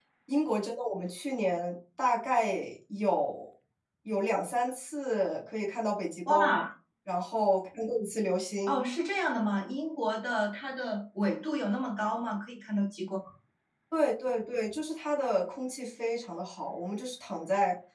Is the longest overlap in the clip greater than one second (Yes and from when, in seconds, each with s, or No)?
No